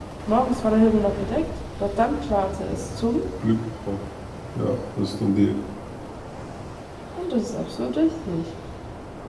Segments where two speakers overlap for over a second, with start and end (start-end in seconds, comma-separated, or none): none